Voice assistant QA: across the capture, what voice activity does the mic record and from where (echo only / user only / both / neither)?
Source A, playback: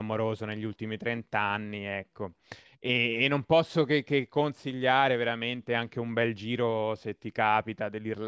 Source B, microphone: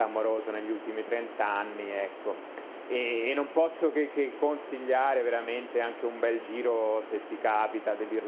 echo only